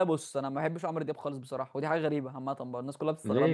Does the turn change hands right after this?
Yes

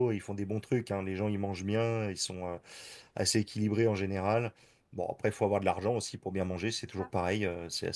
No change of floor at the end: Yes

